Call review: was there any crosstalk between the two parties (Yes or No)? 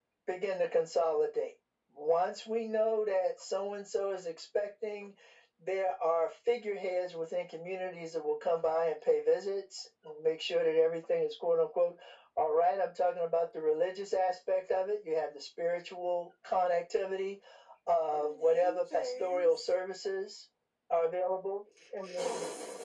Yes